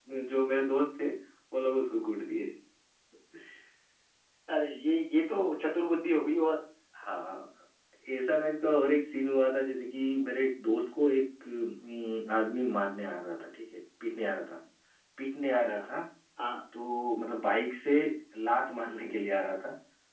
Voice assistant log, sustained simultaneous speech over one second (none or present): none